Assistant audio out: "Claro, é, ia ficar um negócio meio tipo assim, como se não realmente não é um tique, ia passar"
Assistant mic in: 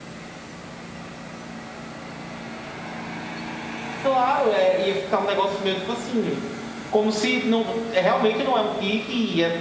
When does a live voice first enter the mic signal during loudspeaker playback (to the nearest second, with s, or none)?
none